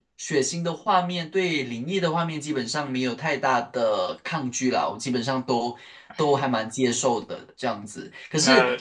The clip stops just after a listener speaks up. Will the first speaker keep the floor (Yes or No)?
Yes